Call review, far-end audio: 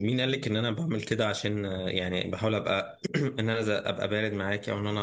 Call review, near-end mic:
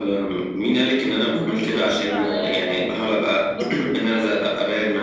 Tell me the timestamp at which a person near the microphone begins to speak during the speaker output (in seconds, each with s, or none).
1.2 s